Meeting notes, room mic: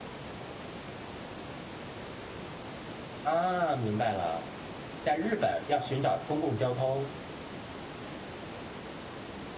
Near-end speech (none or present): present